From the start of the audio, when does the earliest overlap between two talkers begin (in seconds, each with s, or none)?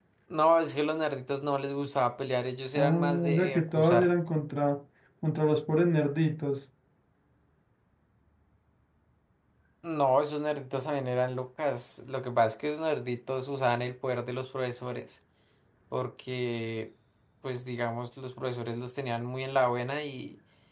2.8 s